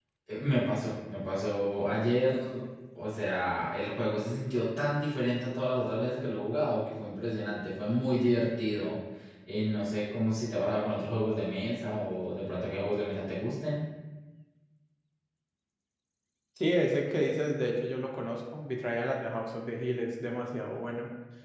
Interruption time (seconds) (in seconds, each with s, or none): none